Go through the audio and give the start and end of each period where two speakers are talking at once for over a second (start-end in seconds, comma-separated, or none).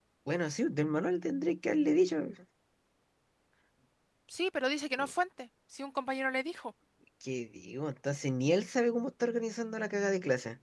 none